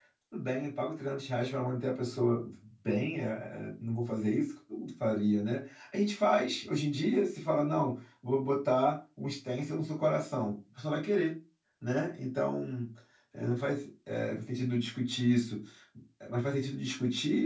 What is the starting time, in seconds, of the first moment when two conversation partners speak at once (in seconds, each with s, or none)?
none